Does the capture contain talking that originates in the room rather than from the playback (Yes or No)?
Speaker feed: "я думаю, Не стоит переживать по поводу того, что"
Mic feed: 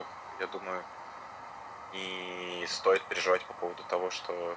No